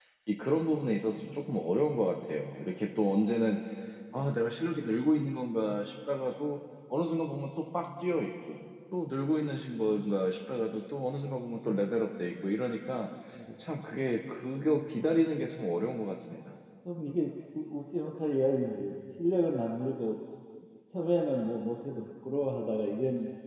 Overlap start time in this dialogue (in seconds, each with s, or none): none